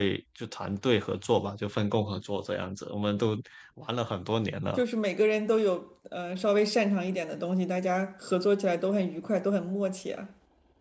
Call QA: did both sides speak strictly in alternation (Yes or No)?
Yes